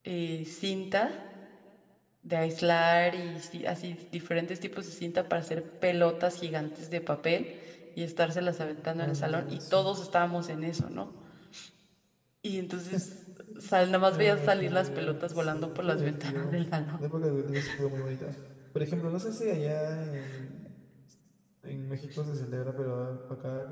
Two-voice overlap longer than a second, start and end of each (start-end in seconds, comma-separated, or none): 8.6-9.9, 14.1-16.5